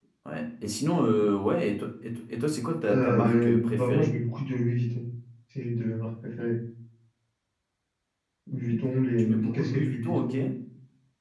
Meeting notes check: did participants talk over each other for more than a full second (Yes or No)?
Yes